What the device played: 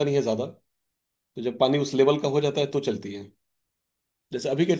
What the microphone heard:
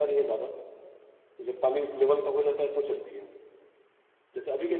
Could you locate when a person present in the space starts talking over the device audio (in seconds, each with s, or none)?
none